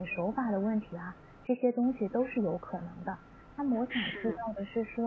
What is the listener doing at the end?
listening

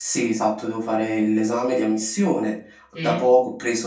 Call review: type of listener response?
listening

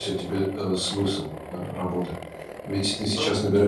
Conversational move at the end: listening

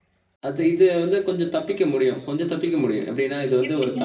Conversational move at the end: listening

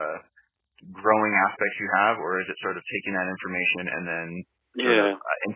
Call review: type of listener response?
listening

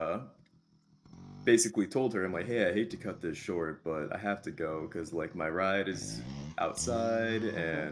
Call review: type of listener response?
listening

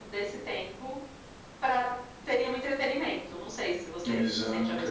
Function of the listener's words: taking over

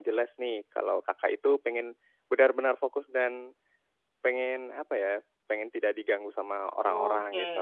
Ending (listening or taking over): taking over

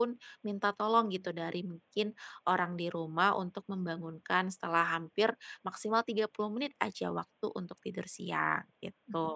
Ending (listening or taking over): taking over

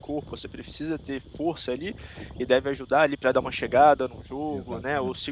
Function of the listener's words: listening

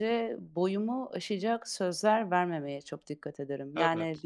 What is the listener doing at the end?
listening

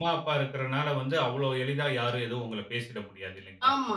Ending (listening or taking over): taking over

